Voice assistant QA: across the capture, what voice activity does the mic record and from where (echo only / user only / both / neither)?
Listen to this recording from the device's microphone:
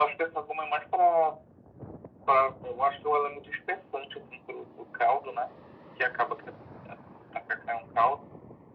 echo only